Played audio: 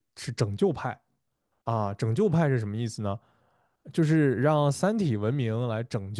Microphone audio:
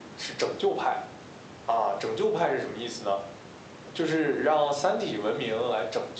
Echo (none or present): present